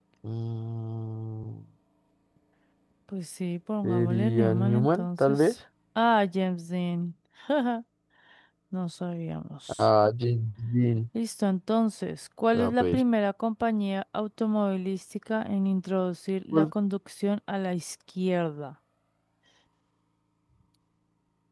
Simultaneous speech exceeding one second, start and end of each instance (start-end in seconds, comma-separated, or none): 3.8-5.5